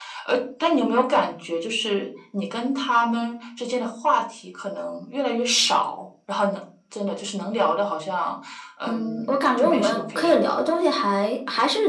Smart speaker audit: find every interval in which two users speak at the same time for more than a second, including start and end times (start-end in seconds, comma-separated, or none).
8.9-10.4